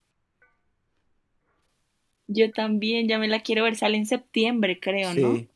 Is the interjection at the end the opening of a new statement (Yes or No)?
Yes